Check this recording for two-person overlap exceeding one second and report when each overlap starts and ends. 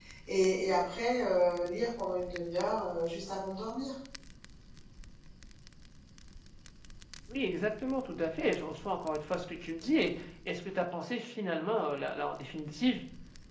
none

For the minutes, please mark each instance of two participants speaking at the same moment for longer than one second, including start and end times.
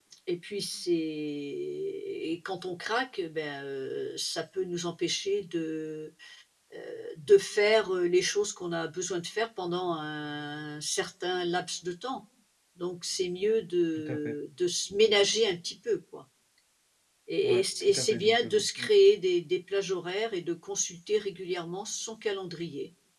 17.4-18.9

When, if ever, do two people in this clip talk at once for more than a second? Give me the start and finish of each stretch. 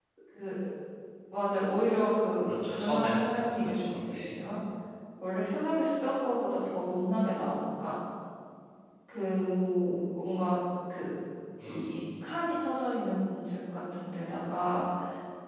2.4-4.3

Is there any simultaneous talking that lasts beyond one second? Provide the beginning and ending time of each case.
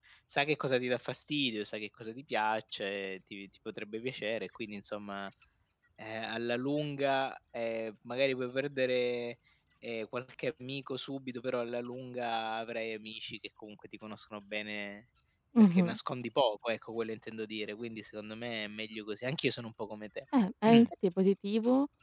none

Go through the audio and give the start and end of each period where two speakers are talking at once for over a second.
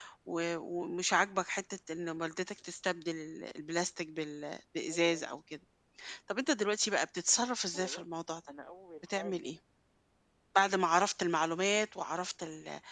none

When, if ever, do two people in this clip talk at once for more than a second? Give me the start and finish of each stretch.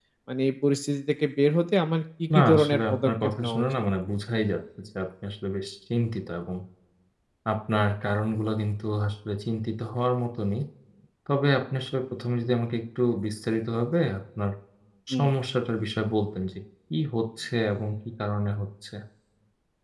2.3-3.7

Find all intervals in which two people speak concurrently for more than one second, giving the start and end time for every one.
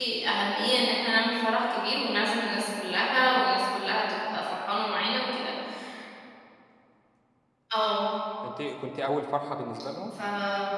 none

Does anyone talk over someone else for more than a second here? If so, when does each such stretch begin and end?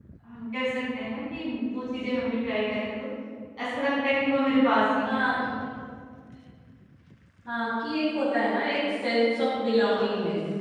none

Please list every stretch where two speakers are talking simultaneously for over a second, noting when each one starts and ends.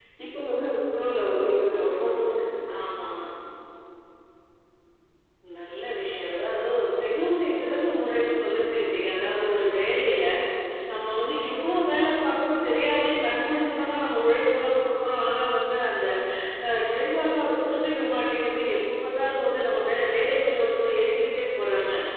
none

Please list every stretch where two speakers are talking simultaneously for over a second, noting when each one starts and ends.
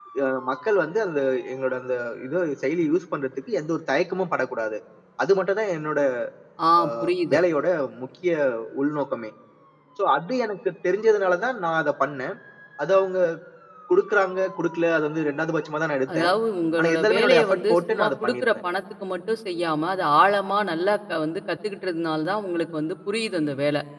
16.8-18.6

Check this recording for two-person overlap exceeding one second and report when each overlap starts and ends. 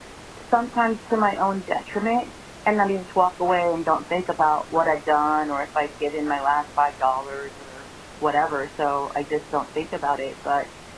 none

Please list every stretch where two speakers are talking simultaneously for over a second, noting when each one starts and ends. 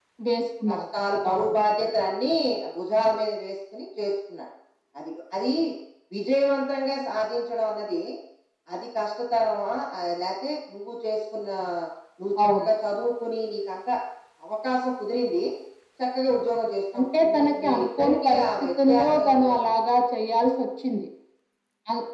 16.9-19.8

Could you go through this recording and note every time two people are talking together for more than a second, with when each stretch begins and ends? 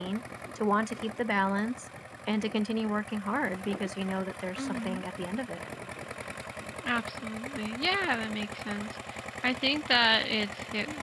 none

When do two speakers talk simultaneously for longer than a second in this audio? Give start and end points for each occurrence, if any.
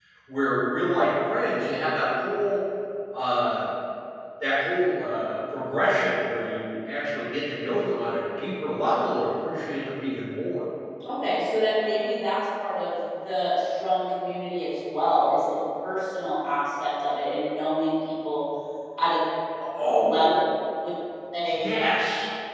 none

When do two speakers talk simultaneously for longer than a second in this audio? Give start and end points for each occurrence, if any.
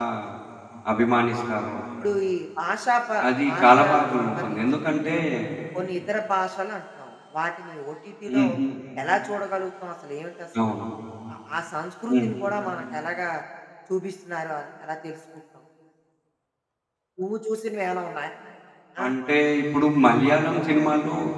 3.5-4.8

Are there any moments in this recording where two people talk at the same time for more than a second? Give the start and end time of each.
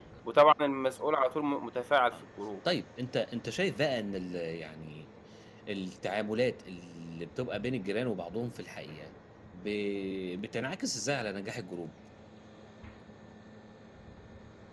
none

